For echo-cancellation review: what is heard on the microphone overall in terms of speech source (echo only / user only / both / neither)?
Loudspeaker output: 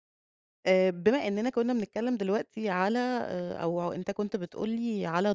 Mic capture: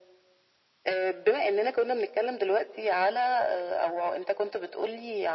echo only